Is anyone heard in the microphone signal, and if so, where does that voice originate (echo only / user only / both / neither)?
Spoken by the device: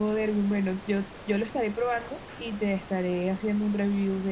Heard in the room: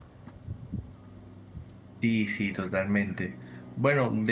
user only